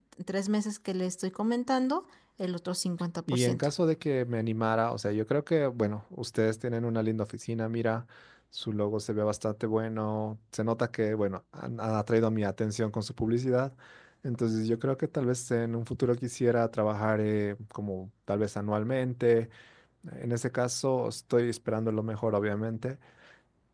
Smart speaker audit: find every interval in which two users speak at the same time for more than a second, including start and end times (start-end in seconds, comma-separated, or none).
none